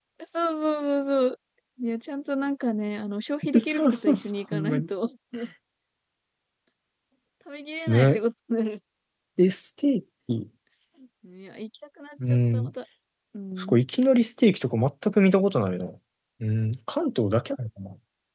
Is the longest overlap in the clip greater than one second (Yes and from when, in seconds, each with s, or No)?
Yes, from 3.6 s